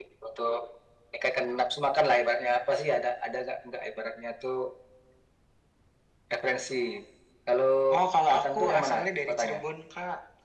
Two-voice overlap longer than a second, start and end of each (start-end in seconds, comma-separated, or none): 8.3-9.6